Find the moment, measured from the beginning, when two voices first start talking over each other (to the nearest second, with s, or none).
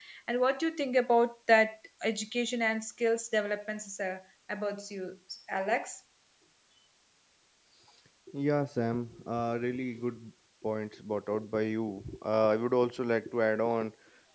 none